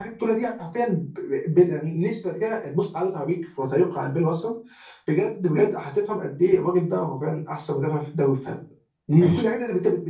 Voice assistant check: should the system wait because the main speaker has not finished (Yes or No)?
Yes